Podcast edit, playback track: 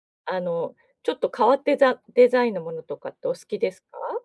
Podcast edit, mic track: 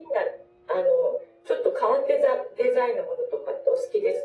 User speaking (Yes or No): No